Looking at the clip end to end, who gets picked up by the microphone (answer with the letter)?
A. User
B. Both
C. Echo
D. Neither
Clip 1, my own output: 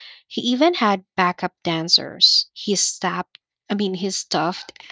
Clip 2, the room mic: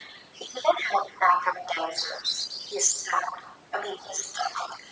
C